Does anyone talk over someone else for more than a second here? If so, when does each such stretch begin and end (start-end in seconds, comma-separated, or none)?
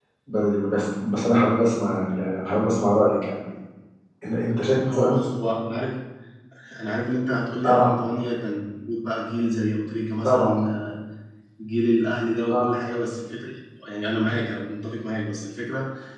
none